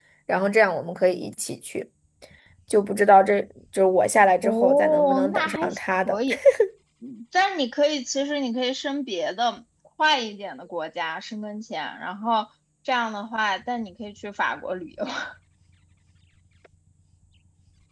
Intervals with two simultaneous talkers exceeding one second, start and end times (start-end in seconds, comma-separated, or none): 4.4-6.2